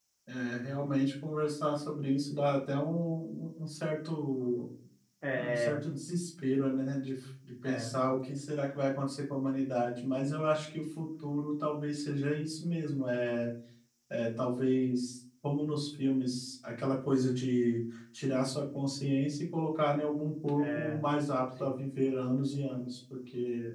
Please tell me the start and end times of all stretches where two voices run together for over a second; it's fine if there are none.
none

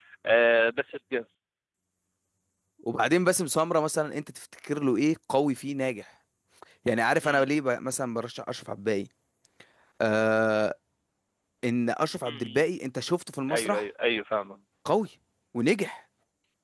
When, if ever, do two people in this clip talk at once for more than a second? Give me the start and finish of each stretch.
none

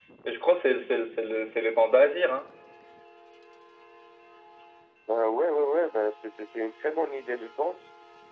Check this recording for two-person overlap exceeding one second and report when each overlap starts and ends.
none

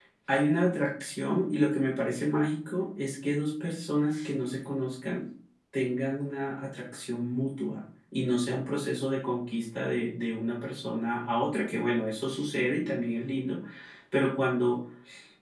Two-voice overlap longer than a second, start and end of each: none

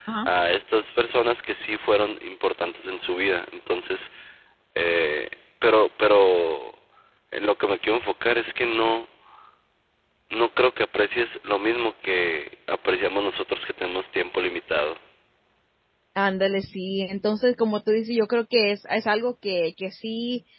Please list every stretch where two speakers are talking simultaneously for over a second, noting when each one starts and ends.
none

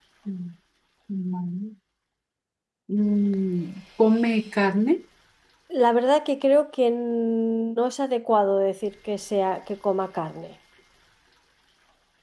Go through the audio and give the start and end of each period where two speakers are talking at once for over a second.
none

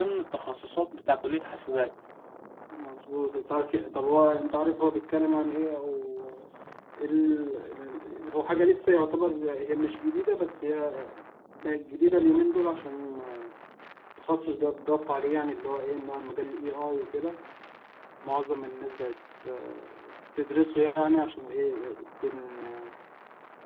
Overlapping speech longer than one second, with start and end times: none

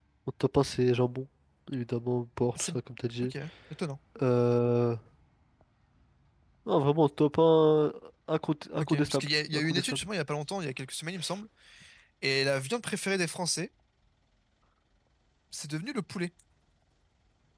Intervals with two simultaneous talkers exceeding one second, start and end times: 8.8-10.1

